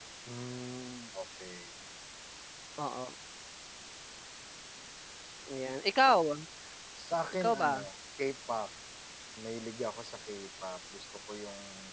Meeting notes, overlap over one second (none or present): none